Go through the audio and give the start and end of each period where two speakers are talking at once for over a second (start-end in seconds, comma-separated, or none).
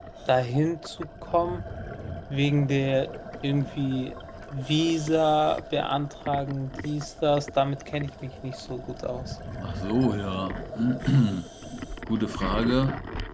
none